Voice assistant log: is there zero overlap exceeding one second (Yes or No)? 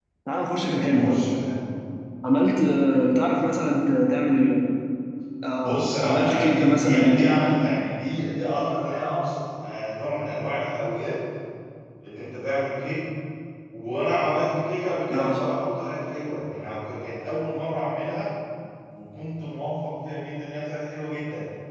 No